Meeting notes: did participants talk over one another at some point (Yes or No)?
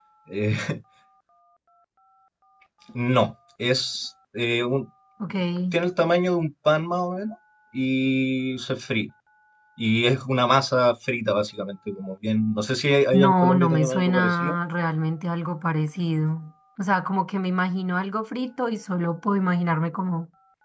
Yes